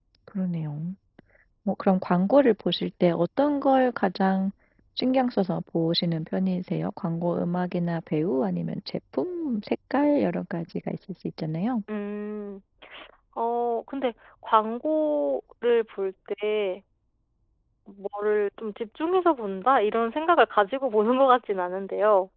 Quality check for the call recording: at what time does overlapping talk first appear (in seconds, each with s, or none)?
none